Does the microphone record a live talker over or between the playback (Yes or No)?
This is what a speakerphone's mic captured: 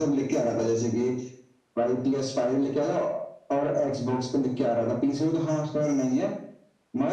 No